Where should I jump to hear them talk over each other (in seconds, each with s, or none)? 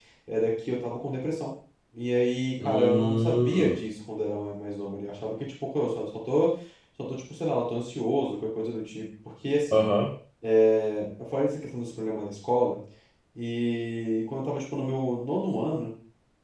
2.6 s